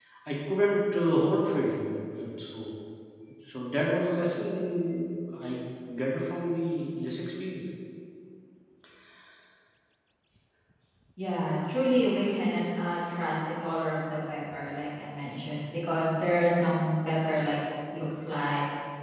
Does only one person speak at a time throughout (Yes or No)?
Yes